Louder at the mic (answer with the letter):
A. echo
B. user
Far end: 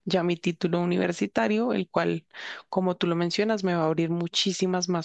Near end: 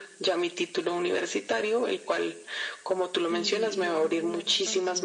A